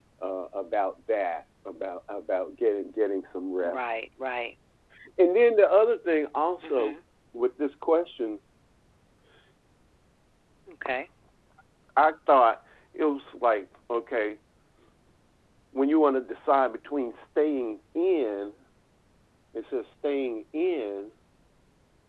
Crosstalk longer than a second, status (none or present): none